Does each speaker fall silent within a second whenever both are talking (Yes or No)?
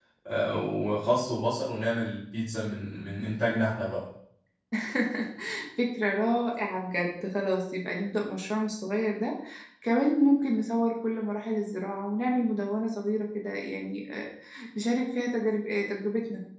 Yes